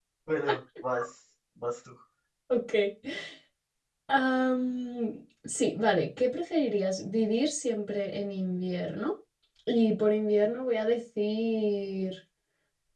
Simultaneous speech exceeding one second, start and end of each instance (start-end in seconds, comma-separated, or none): none